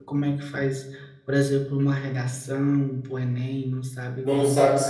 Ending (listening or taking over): taking over